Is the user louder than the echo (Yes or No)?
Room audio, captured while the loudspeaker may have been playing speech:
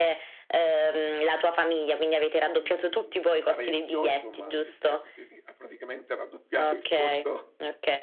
No